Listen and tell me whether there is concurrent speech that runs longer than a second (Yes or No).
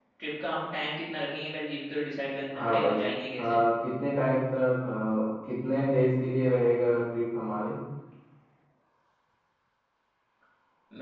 No